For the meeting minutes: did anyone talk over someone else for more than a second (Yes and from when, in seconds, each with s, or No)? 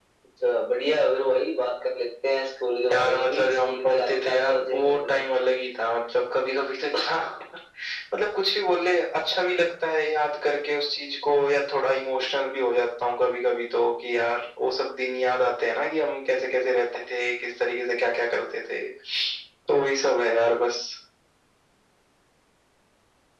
Yes, from 2.9 s